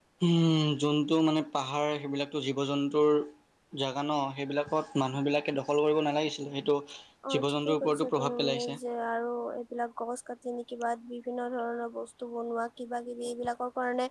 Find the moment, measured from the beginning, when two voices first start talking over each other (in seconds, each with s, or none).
7.3 s